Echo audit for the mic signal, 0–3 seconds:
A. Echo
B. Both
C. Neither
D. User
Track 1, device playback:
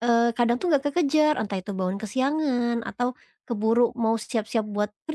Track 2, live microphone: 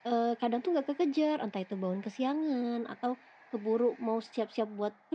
A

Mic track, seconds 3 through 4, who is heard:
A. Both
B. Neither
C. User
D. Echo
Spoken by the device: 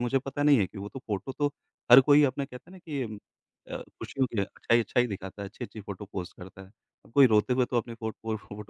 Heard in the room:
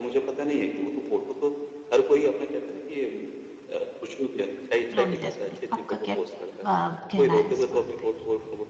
D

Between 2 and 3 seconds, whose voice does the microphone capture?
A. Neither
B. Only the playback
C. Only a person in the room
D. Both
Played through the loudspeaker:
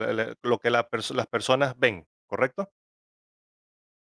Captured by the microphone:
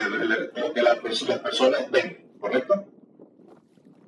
B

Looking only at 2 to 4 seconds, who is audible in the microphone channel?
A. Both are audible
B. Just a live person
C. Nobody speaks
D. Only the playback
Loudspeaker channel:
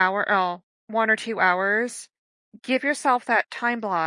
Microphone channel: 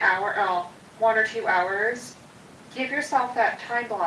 D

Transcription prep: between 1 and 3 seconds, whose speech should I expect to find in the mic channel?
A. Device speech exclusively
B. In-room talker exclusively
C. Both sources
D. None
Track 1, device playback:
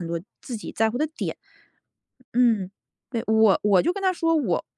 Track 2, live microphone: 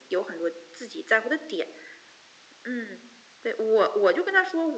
A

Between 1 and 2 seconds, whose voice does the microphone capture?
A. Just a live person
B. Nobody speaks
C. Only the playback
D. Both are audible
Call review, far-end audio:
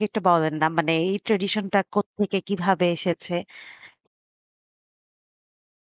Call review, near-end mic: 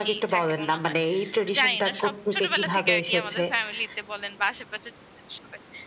D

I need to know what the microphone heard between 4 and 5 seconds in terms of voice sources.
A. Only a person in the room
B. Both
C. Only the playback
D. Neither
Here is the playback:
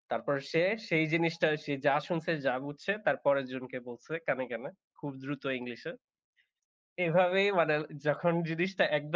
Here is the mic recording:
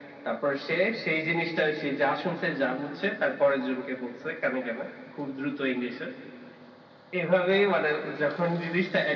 C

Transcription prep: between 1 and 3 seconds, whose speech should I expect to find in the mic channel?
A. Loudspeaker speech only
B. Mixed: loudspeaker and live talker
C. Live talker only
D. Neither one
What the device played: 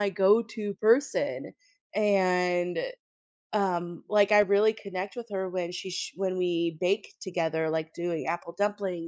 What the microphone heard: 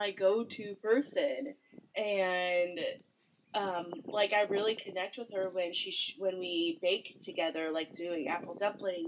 A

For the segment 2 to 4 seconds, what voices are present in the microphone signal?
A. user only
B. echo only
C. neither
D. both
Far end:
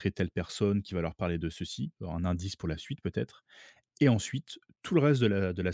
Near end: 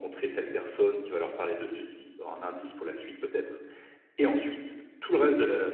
B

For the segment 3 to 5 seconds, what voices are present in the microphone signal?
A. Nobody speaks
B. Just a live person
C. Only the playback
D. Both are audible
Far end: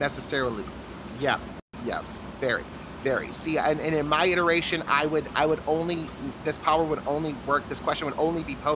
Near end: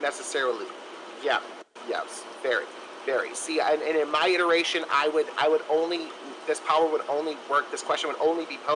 C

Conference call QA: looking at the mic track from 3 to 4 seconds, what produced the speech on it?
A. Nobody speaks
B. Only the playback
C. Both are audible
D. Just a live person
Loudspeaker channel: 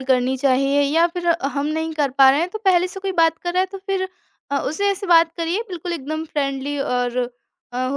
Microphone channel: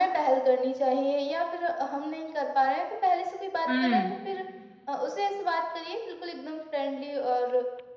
C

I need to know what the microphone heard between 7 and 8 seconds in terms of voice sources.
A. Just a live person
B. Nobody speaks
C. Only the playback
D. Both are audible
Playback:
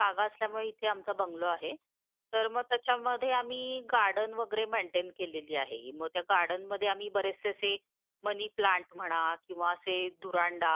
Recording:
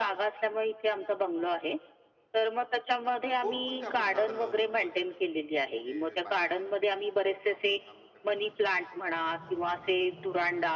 D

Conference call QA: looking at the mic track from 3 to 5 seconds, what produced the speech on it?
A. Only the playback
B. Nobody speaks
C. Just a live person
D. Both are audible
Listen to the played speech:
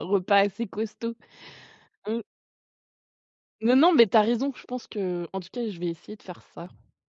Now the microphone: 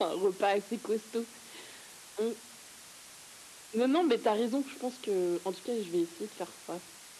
A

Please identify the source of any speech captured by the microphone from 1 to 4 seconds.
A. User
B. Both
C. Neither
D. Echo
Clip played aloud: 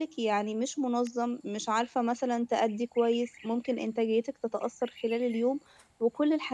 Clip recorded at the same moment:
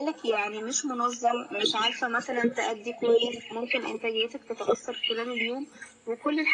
D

